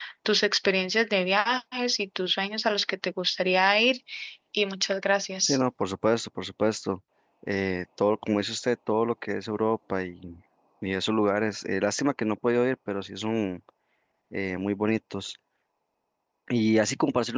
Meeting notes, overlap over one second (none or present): none